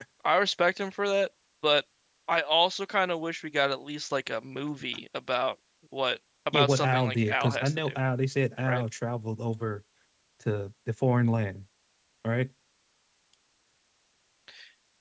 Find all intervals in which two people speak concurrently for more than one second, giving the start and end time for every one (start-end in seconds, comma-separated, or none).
6.5-8.0